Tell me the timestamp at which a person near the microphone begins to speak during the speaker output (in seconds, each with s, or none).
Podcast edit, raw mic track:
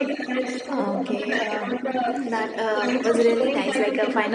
0.7 s